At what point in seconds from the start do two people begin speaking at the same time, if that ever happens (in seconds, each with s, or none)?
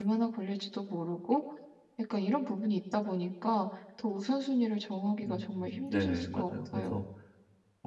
5.2 s